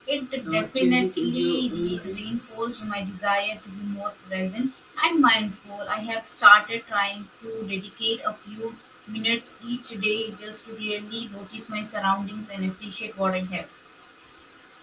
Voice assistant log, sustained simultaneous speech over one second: present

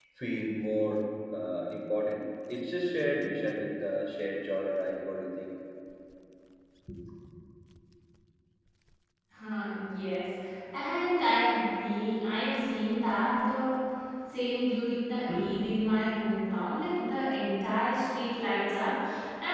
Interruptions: none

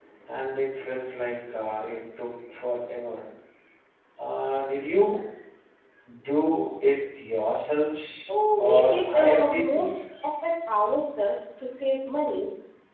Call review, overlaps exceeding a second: present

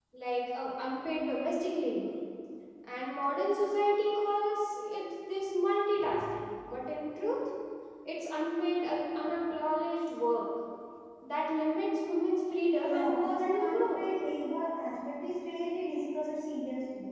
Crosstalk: present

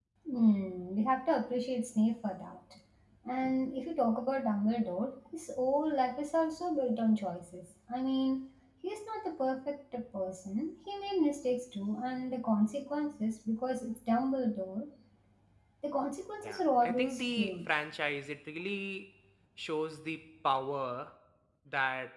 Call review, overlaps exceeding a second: present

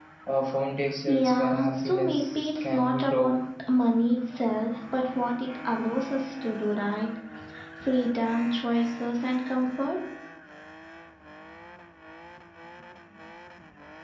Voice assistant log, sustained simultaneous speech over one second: present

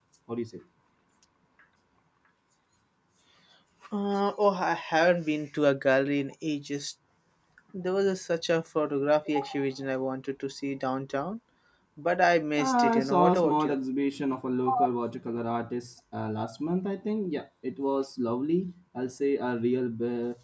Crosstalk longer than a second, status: present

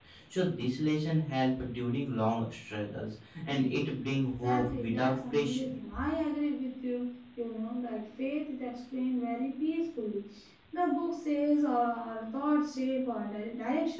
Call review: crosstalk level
present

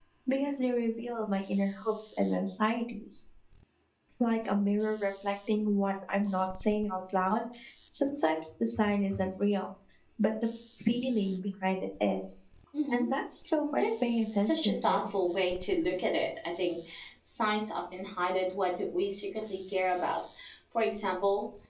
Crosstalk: present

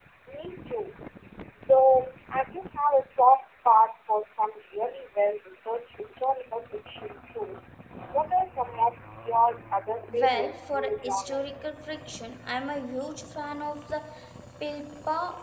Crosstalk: present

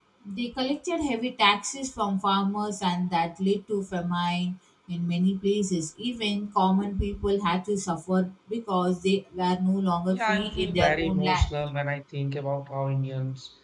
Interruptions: present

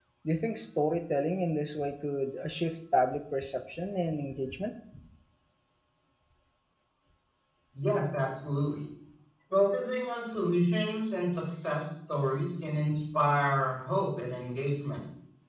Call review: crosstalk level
none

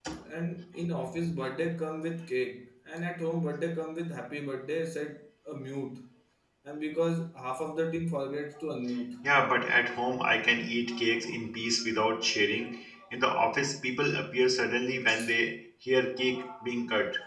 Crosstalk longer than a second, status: none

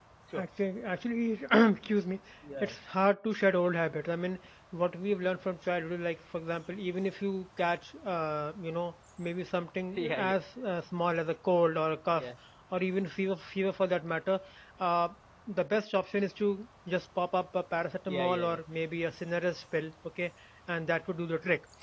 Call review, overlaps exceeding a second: none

